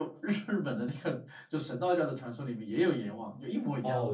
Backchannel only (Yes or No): No